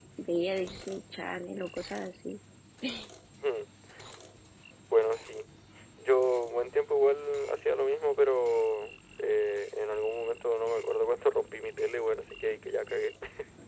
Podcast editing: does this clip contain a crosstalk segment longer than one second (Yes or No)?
No